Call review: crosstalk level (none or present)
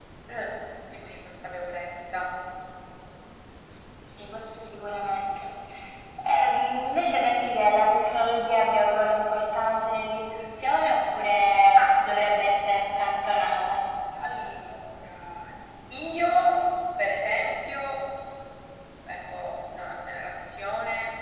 present